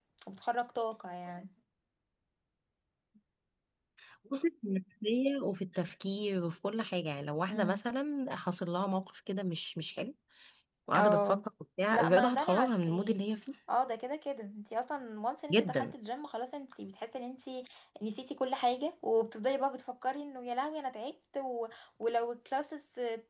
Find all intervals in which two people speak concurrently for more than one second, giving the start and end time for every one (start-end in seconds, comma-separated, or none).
11.9-13.2